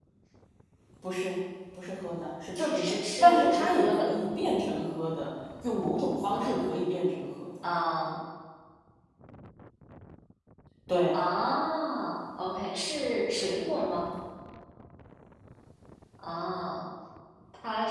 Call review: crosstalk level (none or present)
present